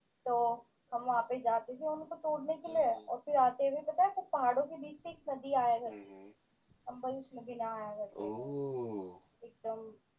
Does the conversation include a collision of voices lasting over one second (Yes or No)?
No